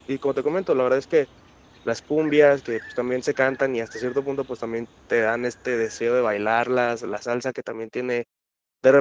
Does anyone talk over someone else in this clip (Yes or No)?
No